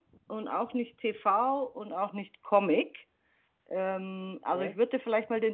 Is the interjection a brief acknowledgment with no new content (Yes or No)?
Yes